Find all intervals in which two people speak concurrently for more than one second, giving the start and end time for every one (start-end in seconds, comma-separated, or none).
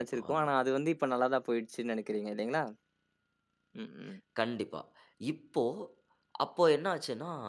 none